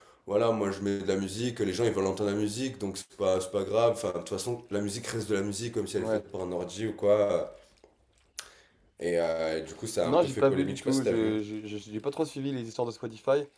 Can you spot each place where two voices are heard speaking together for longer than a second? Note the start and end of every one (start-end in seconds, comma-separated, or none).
10.0-11.3